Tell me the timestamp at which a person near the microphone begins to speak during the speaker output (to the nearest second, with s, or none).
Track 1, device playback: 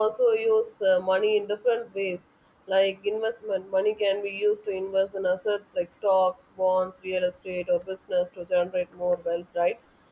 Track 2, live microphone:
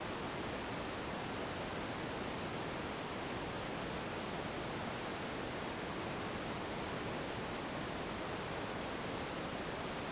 none